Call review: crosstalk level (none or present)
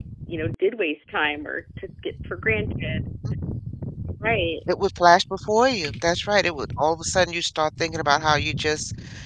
none